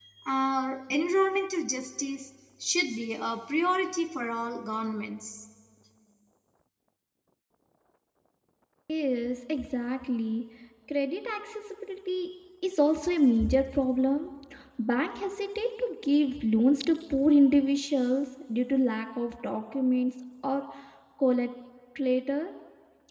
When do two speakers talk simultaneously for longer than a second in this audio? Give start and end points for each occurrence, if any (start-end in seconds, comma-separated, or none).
none